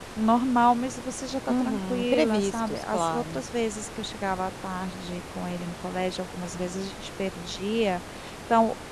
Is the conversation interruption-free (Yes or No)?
No